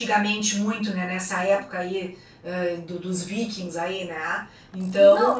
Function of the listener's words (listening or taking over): taking over